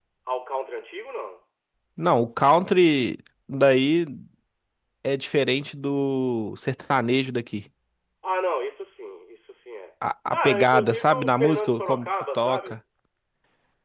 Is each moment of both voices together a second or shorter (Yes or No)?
No